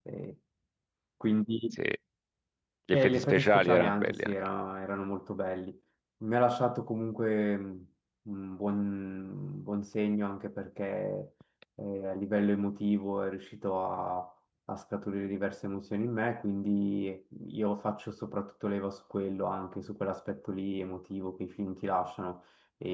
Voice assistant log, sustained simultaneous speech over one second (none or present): present